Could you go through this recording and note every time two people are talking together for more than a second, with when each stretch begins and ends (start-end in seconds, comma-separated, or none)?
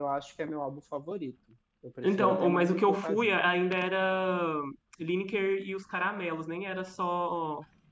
2.0-3.3